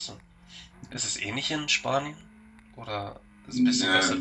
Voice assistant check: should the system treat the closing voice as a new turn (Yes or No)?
Yes